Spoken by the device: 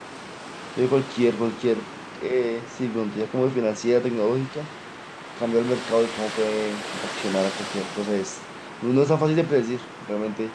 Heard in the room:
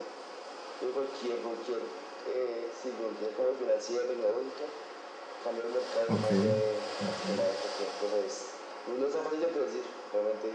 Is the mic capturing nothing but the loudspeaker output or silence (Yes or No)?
No